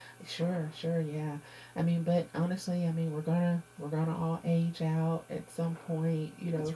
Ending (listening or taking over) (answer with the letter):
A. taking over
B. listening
B